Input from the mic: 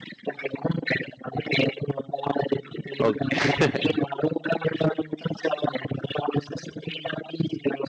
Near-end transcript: Okay.

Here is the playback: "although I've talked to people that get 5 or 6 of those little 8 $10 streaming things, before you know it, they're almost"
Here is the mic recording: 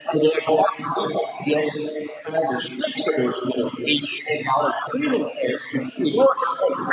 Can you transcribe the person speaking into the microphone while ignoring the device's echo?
none

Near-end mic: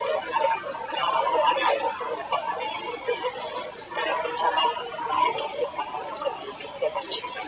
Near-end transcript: none

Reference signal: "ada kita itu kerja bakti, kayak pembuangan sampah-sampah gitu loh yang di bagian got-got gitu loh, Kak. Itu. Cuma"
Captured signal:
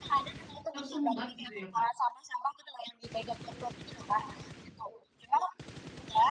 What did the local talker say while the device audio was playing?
Tersumbat gitu ya, Kak?

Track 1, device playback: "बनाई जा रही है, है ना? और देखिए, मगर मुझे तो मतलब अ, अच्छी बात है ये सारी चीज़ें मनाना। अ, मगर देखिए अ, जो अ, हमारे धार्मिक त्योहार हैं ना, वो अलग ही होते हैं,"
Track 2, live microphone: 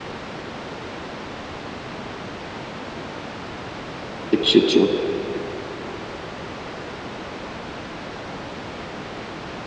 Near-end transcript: अच्छा, अच्छा।

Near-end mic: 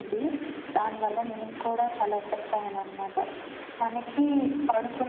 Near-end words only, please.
none

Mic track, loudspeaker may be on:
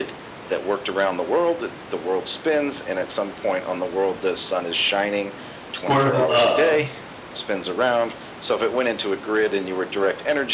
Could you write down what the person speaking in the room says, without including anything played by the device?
square kil um,

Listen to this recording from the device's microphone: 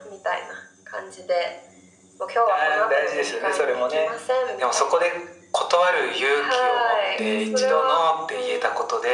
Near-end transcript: うん。

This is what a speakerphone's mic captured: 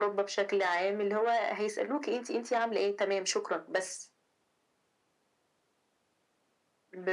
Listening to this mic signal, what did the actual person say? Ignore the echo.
none

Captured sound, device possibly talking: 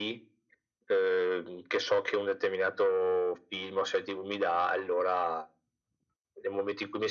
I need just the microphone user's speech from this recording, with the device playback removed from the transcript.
none

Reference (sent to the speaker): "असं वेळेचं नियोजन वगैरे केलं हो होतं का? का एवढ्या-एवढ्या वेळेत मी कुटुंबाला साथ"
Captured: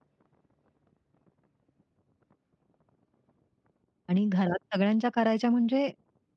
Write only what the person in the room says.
आणि घरात सगळ्यांच्या करायच्या म्हणजे,

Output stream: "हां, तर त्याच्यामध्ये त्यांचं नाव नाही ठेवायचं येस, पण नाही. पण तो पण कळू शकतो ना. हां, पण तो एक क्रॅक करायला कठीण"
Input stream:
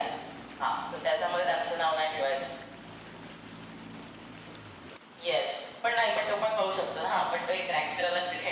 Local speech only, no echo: none

